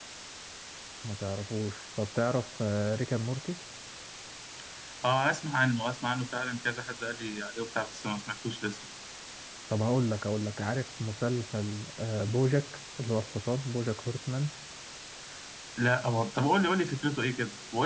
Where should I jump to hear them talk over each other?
none

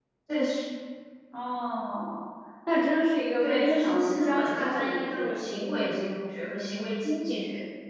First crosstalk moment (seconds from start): 3.4 s

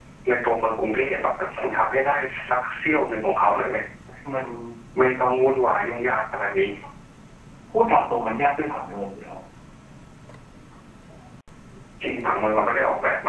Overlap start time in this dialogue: none

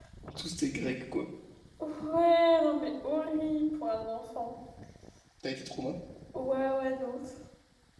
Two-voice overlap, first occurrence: none

